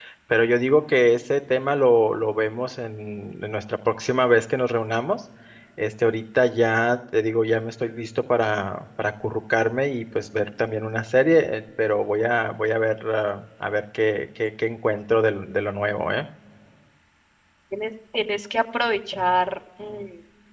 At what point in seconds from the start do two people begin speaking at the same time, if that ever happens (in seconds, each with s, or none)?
none